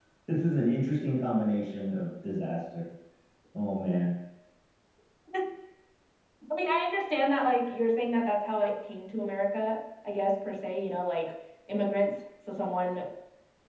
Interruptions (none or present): none